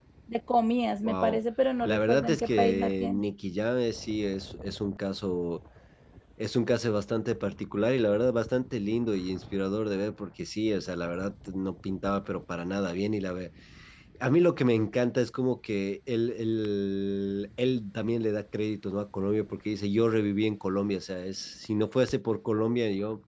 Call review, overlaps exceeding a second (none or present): present